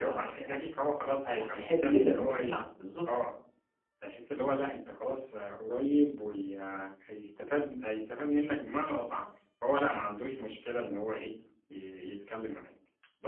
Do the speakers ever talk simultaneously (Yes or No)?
Yes